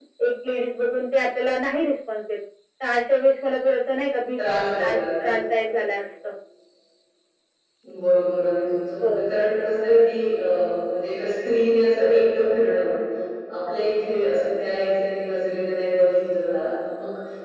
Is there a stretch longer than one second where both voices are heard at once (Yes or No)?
No